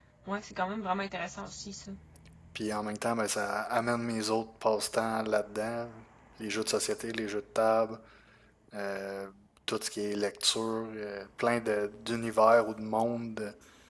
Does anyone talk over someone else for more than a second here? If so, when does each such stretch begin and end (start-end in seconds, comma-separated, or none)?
none